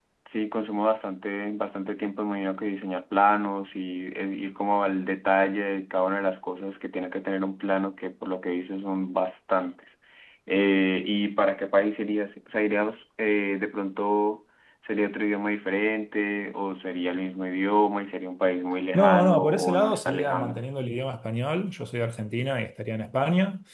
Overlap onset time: 19 s

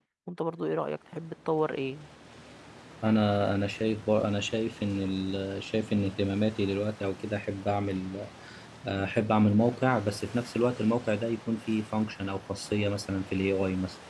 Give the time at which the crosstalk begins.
none

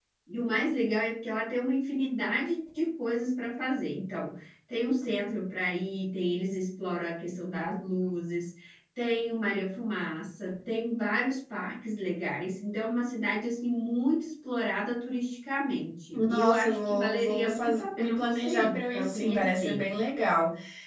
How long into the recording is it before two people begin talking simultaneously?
16 s

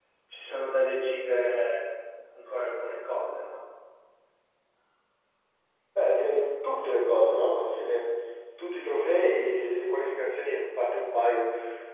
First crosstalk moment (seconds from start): none

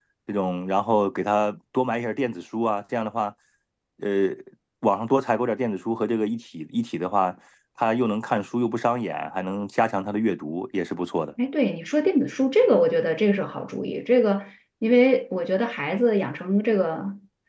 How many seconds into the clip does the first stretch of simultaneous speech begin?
none

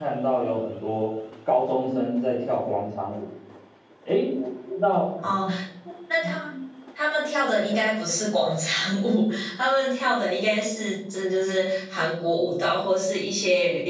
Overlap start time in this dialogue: none

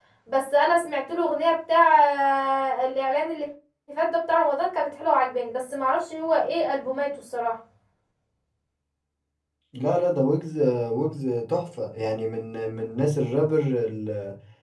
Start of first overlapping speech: none

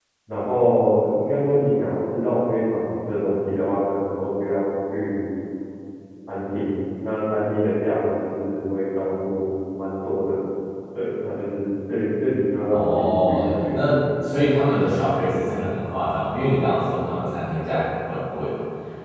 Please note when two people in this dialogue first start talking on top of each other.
13 s

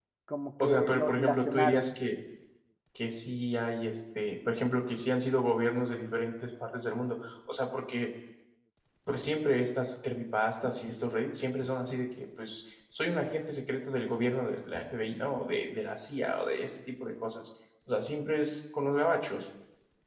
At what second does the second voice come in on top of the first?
1 s

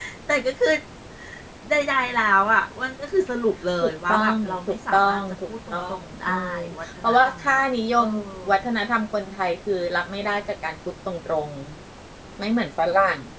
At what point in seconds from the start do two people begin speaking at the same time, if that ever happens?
4 s

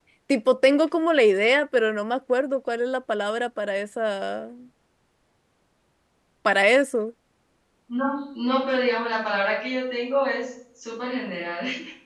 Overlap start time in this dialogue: none

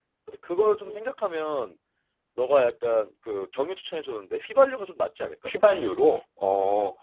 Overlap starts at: none

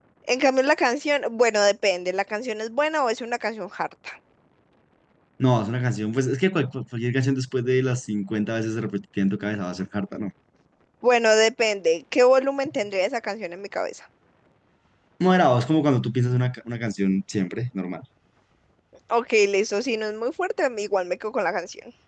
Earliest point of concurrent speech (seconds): none

